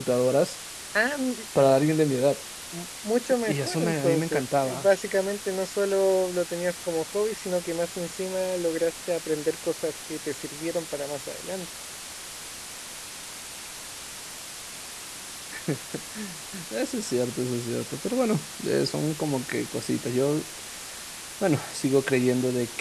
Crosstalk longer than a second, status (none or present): present